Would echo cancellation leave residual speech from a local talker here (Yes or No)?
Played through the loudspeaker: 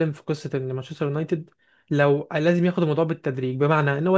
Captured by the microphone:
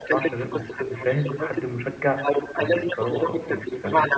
Yes